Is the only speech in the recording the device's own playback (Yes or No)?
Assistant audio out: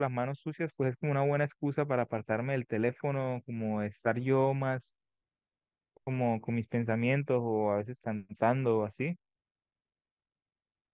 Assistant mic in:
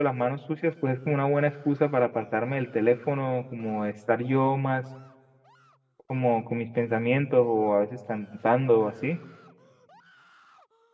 Yes